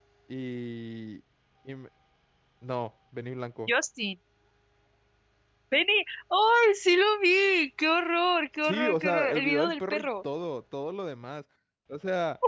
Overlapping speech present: Yes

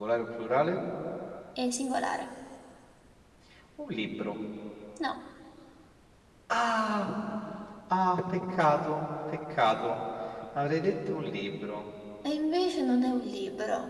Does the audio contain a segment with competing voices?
No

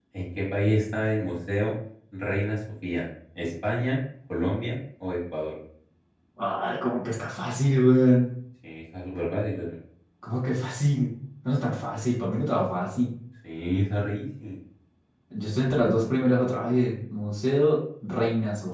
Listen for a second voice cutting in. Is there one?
No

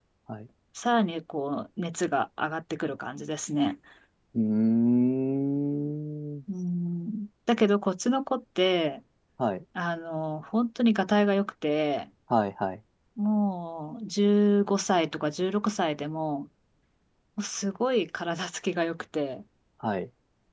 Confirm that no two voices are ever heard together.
Yes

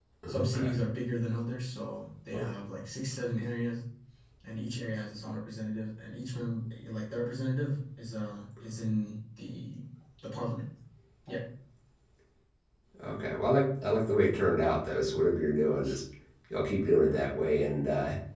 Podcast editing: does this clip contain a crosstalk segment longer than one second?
No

